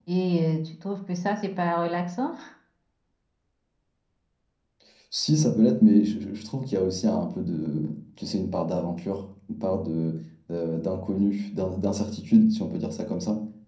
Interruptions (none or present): none